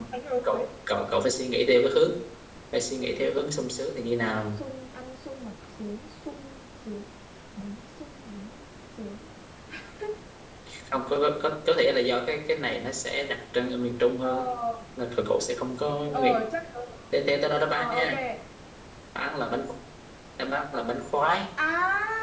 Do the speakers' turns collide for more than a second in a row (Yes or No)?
No